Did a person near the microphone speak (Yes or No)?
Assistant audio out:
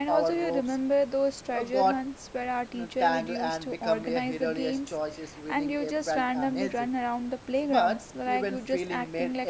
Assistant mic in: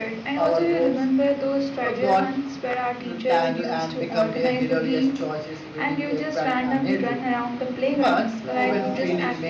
Yes